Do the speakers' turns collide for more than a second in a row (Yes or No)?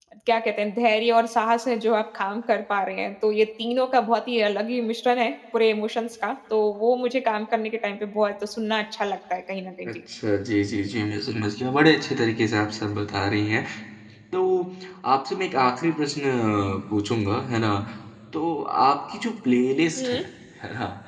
No